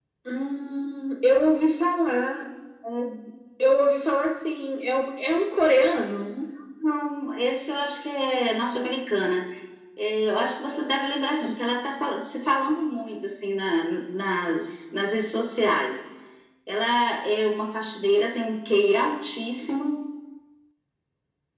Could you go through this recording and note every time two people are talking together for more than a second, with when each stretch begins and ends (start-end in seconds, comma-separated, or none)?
none